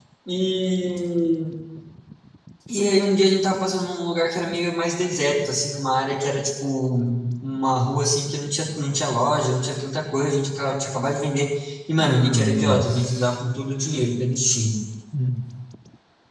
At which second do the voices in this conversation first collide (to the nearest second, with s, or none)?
12 s